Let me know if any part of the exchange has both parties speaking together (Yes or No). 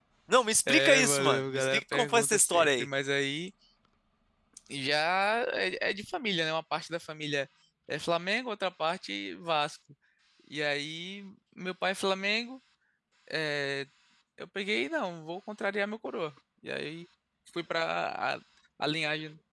Yes